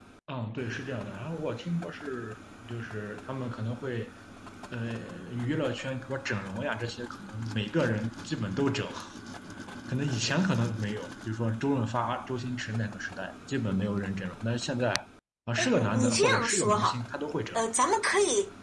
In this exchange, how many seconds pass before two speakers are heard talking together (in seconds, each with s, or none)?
15.6 s